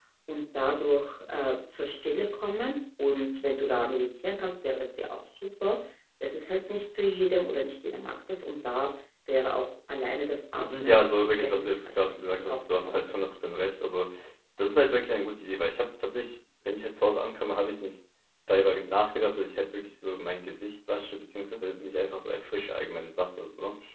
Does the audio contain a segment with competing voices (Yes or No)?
Yes